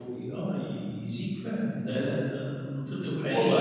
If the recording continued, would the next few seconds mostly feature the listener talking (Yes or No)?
Yes